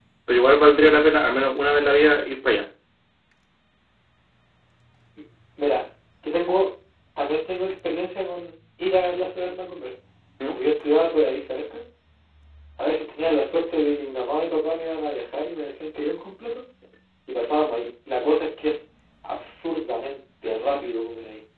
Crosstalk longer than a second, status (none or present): none